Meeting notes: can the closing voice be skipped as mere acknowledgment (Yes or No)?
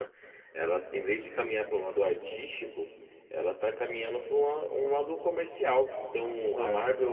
Yes